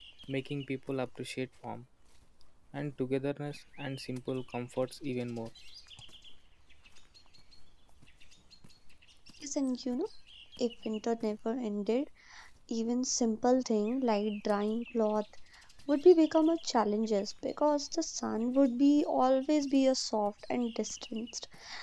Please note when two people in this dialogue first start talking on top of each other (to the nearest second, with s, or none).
none